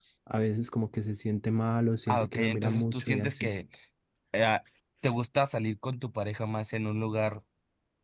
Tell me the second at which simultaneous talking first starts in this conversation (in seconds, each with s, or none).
2.1 s